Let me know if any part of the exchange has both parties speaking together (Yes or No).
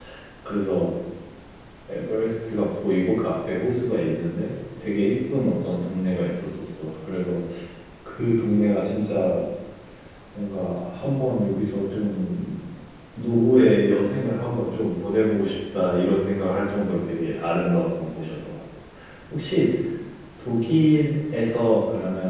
No